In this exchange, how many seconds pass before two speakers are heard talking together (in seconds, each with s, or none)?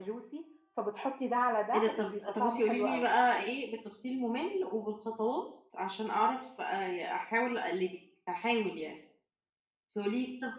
1.7 s